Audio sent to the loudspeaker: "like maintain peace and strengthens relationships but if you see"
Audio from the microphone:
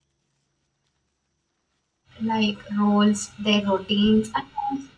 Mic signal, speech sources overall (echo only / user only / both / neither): user only